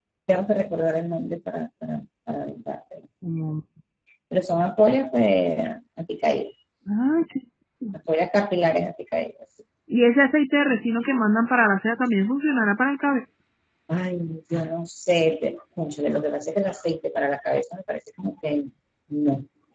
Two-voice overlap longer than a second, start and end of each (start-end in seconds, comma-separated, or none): none